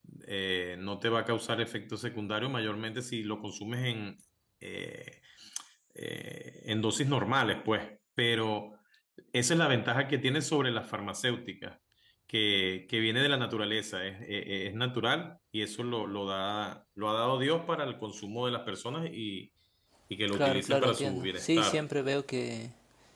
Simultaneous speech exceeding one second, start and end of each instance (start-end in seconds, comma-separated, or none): 20.3-21.9